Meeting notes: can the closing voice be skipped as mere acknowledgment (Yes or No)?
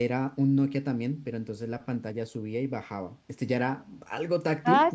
No